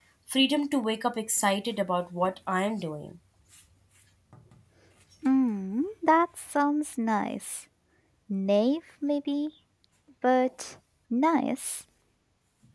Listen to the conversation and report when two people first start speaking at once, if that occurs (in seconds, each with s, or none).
none